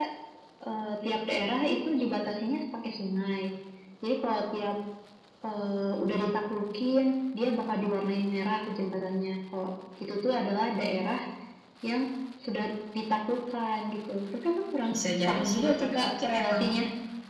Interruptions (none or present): present